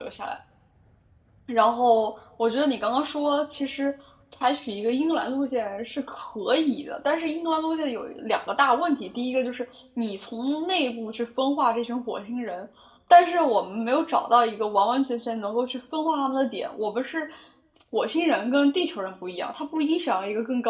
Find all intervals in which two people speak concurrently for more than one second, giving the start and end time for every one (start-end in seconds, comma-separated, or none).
none